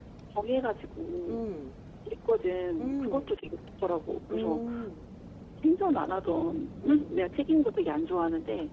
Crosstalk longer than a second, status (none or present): none